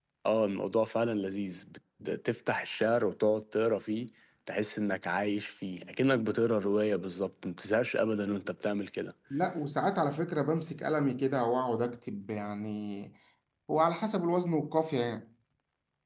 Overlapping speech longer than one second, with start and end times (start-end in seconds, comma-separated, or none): none